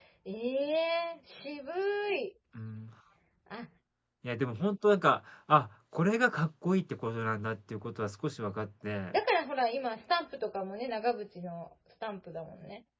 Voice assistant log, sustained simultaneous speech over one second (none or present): none